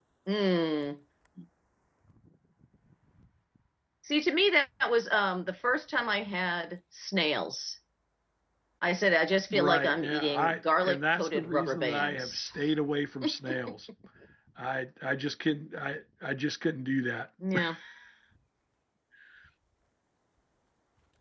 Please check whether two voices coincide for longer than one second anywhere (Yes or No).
Yes